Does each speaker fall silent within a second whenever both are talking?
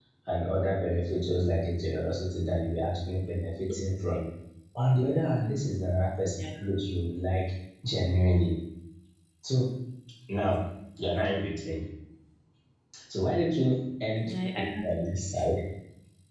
No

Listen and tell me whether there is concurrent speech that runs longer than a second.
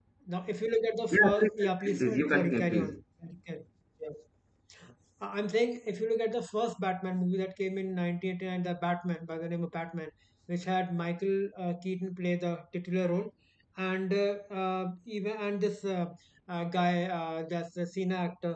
Yes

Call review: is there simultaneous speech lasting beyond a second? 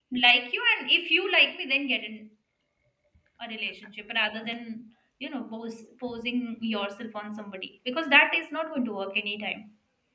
No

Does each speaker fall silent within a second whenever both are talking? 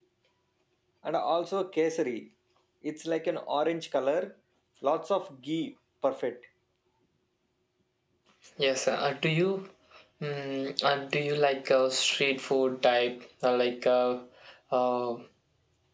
Yes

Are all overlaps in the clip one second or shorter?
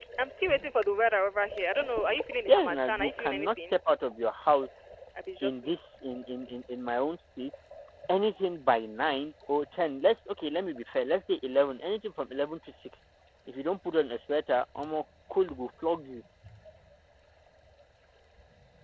No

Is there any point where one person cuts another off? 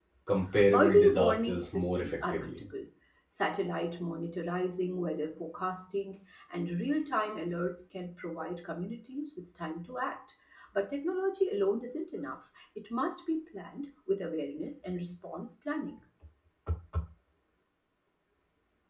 Yes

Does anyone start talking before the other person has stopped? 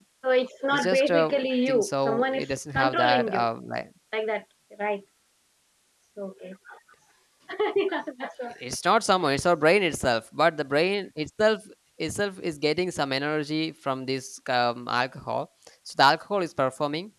Yes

